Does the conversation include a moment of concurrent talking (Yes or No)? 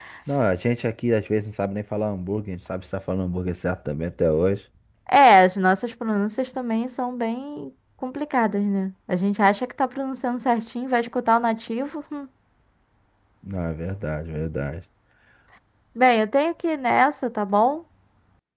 No